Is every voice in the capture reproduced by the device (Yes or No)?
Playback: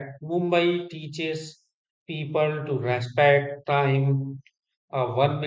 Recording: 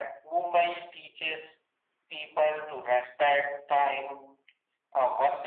Yes